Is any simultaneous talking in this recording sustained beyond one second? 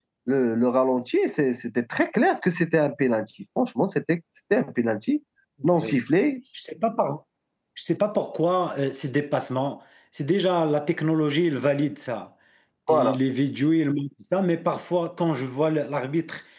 No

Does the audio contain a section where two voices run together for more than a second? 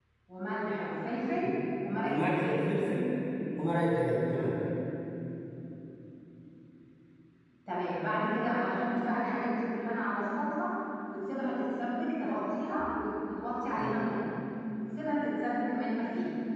No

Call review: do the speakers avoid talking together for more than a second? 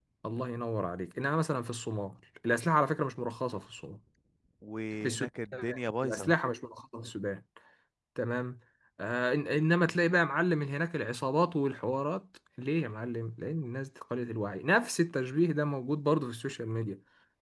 Yes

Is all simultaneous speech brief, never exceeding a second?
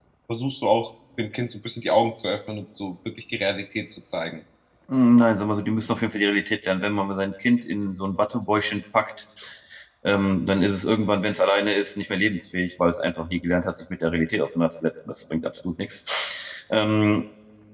Yes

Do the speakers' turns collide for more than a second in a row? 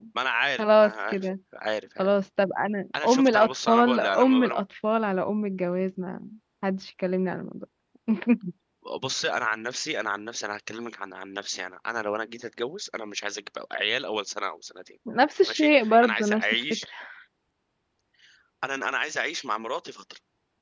Yes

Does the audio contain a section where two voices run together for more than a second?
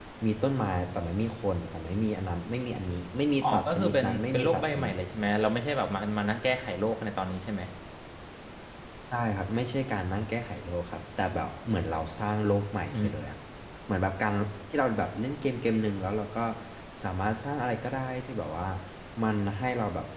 Yes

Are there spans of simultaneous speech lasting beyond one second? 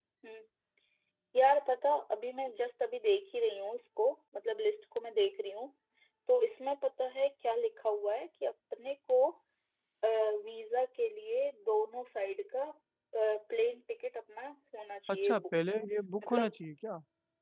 No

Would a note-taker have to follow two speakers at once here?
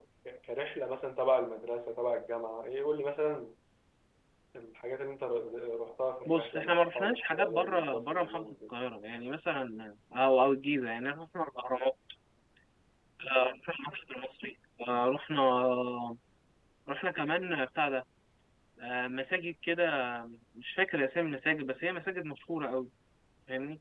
Yes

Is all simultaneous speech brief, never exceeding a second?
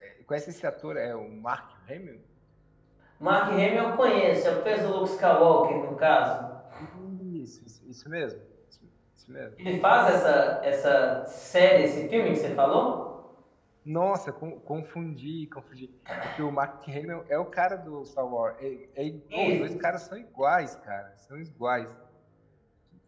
Yes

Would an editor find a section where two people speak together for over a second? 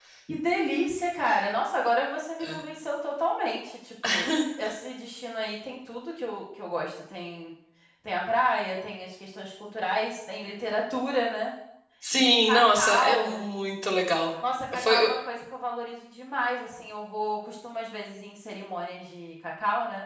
Yes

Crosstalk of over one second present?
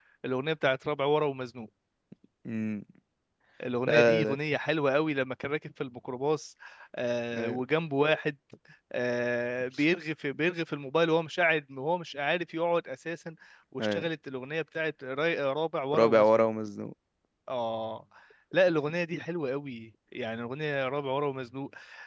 No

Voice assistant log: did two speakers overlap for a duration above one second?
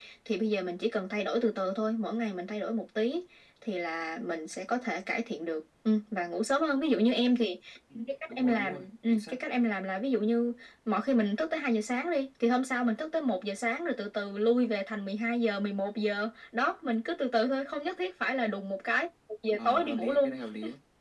Yes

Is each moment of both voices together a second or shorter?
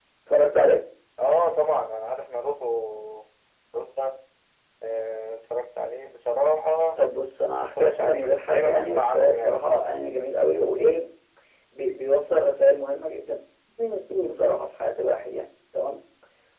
No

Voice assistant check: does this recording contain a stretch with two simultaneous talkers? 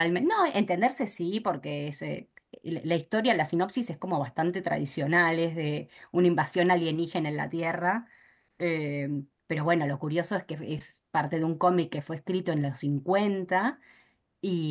No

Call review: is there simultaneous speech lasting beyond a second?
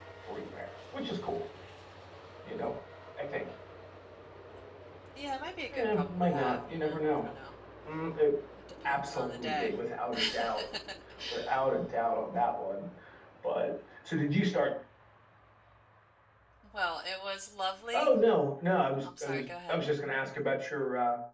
Yes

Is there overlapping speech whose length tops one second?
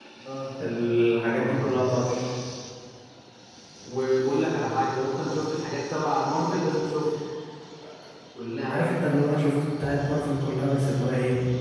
No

